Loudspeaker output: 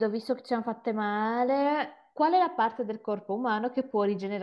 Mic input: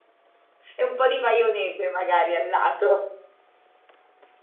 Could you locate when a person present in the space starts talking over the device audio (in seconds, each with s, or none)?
0.7 s